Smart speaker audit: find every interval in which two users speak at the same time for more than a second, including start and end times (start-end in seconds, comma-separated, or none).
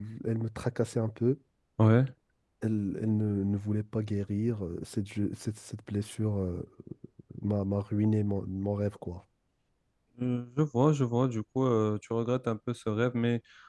none